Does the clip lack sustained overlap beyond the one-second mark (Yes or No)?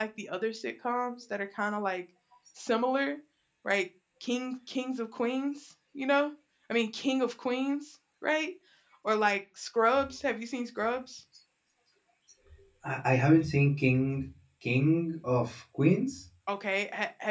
Yes